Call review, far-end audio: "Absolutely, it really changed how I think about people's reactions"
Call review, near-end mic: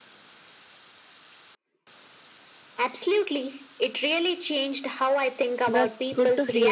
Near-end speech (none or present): present